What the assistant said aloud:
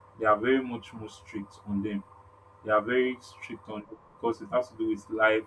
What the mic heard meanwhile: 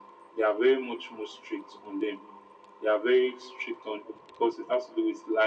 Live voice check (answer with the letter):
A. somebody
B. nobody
B